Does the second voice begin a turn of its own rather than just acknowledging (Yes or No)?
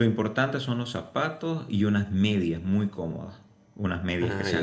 No